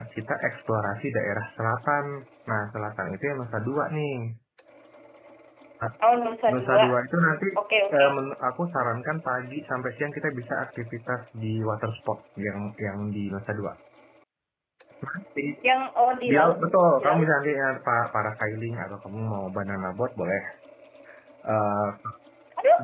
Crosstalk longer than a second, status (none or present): none